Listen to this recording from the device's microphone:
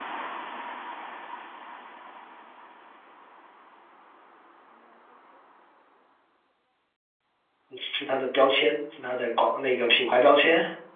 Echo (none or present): none